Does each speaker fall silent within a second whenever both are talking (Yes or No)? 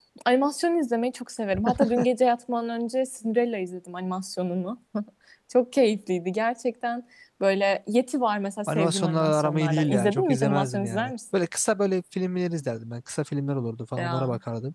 No